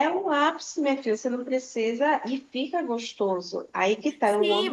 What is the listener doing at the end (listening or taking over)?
taking over